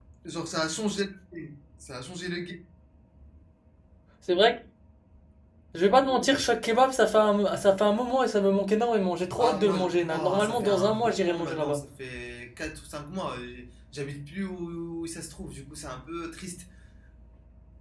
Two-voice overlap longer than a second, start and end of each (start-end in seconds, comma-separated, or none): 9.4-11.8